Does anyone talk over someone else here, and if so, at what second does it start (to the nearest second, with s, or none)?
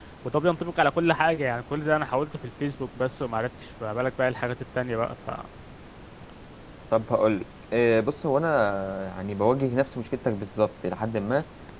none